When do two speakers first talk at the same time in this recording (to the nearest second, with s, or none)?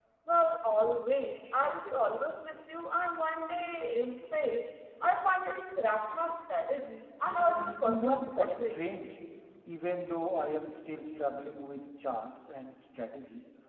7 s